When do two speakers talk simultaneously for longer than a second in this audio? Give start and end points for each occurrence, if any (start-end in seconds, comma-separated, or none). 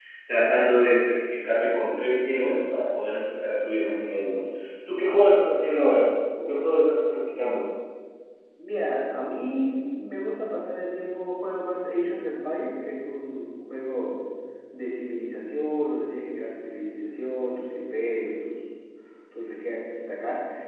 none